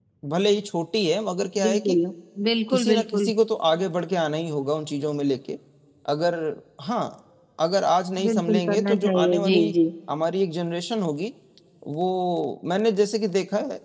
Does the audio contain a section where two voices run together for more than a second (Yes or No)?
Yes